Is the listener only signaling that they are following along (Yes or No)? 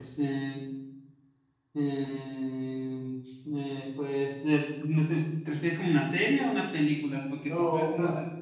No